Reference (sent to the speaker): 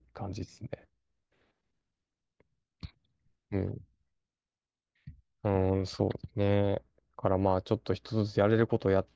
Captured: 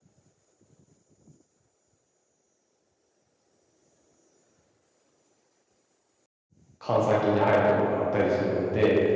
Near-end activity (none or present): present